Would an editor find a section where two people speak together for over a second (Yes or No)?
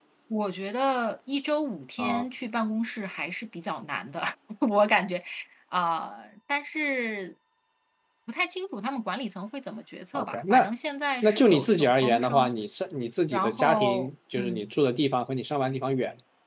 Yes